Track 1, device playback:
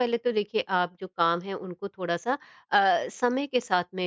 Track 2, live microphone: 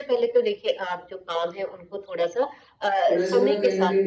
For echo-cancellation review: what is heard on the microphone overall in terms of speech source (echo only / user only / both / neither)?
both